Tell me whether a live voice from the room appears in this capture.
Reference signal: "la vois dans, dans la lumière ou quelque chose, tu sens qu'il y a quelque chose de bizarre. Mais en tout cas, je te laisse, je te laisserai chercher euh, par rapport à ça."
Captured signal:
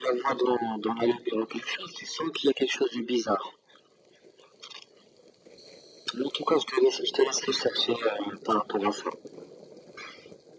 No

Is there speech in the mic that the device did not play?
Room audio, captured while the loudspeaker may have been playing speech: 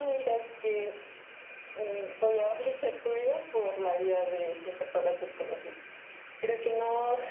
No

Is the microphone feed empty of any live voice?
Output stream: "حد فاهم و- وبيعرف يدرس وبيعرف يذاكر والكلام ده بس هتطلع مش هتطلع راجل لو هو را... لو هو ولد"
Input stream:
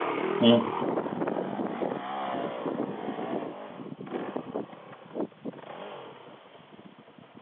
No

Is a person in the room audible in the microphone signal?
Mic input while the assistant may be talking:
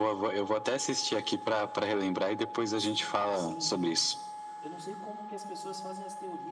Yes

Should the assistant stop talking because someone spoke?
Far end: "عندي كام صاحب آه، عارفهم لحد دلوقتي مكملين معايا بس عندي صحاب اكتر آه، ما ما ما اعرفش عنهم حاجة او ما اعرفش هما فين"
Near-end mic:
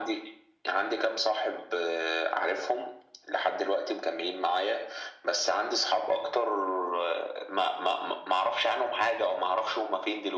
No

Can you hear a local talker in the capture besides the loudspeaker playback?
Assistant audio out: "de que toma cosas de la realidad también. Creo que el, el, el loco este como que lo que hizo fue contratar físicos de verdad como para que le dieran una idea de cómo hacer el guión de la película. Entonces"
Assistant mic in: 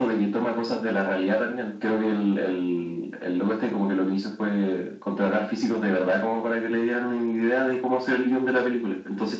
No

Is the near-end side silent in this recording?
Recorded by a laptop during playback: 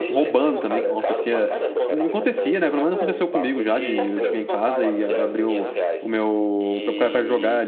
No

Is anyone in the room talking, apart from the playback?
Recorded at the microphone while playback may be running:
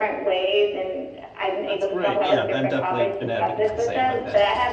Yes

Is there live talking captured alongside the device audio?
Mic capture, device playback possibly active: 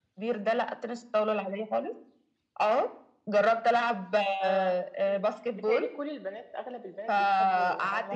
Yes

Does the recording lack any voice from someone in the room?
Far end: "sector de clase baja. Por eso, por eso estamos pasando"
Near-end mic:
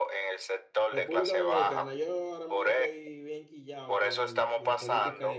No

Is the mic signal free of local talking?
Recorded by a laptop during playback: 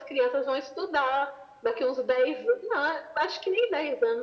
Yes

